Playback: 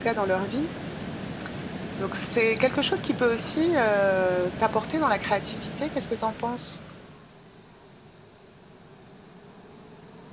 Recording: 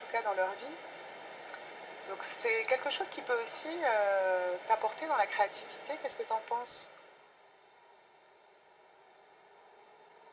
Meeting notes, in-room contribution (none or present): none